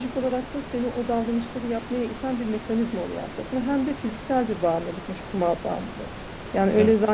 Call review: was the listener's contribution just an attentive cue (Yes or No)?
Yes